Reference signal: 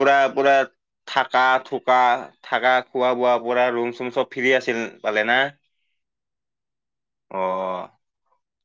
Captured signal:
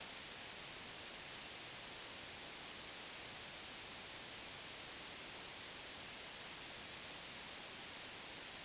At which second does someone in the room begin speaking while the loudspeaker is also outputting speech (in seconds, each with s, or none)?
none